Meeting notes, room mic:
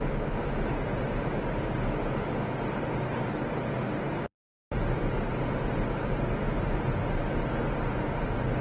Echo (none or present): none